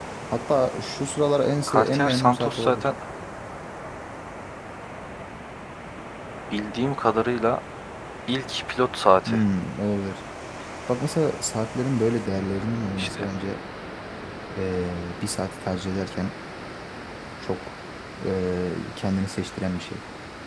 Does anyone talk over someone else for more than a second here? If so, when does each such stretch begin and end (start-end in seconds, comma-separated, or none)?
1.7-2.9